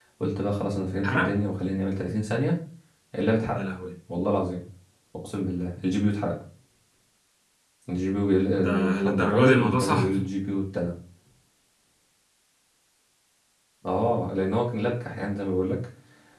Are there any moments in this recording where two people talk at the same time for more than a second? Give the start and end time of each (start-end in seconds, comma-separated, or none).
8.6-10.1